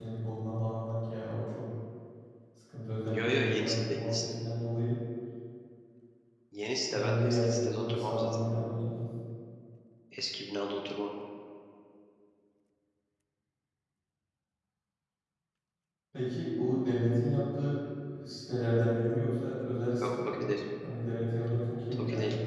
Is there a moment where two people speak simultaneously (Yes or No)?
Yes